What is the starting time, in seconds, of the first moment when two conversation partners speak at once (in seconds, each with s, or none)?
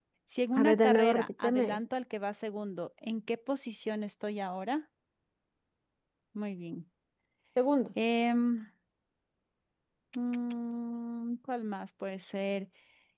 0.6 s